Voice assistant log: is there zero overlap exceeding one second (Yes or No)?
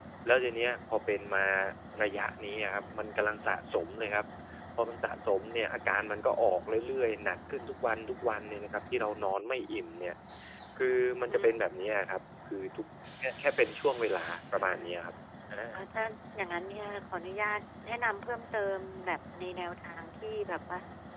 Yes